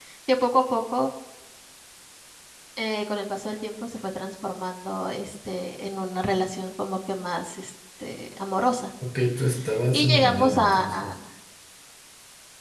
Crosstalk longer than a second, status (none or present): present